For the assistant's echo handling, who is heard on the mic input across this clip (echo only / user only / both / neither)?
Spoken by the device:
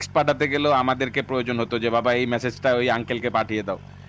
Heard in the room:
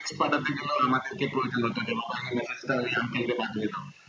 echo only